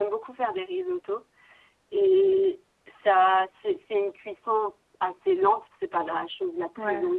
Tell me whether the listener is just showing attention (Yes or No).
Yes